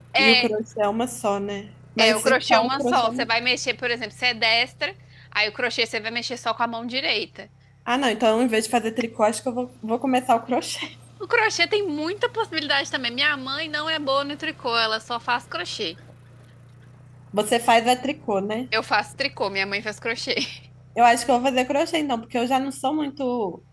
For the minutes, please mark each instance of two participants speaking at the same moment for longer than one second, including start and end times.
2.0-3.3

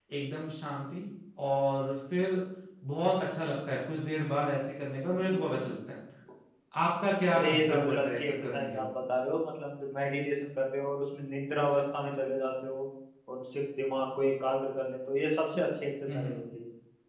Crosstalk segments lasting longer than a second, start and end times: 7.3-8.9

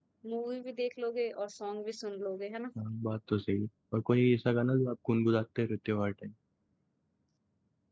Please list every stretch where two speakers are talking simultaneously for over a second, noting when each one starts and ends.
none

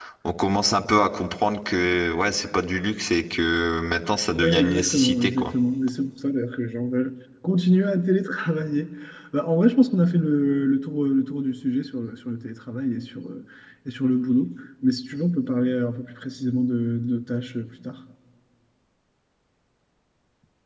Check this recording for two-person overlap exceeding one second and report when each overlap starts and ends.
4.3-5.5

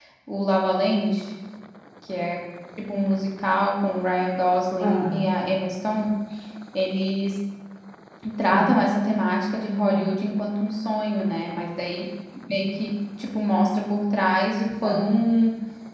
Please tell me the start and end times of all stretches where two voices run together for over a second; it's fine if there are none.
none

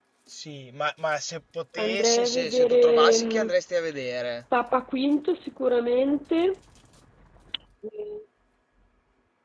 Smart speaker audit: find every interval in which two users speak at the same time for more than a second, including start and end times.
1.8-3.5

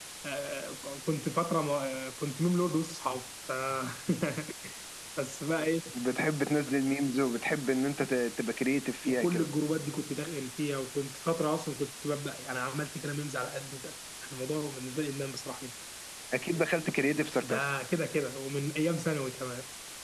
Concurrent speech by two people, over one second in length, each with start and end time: none

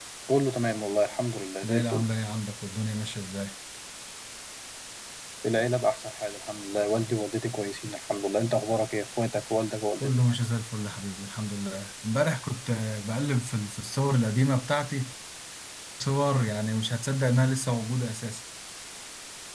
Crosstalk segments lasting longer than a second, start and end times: none

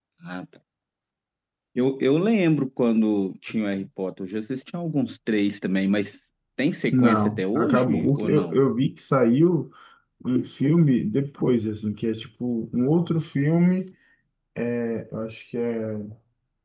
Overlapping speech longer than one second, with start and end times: 6.9-8.6

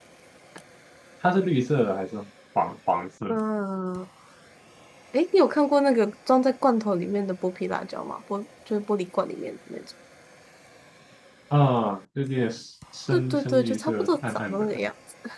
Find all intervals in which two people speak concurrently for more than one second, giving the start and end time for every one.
13.1-14.7

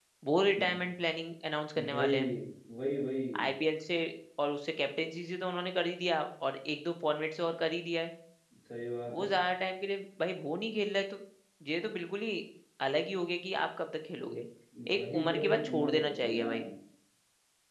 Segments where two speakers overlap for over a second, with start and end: 15.0-16.5

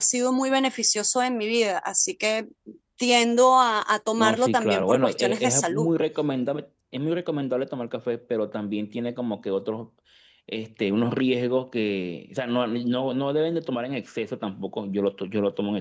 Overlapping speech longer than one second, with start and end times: 4.2-5.9

